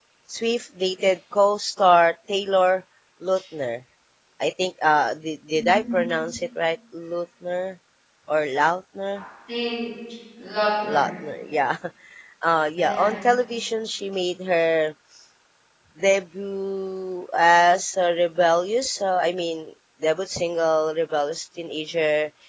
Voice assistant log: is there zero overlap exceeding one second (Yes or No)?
Yes